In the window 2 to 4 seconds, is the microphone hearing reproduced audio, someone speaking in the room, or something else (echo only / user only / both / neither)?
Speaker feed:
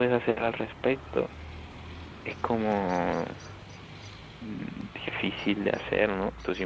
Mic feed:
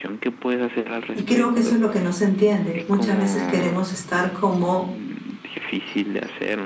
both